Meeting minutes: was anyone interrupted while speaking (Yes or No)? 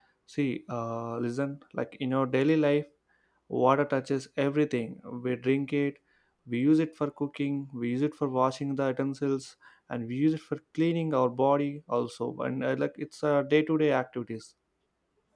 No